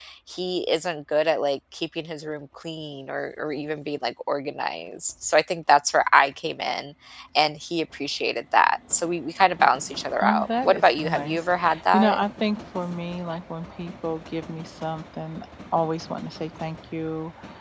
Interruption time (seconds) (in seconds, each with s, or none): 10.2 s